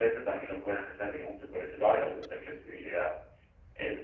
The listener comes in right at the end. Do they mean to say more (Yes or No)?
No